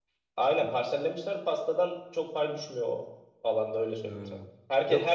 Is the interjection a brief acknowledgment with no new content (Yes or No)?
Yes